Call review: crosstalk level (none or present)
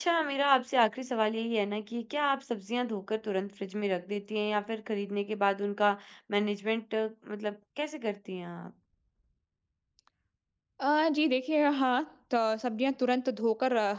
none